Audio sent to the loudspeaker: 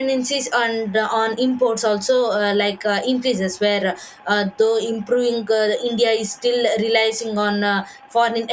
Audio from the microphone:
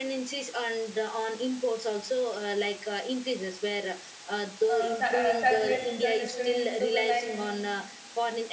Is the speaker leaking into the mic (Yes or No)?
Yes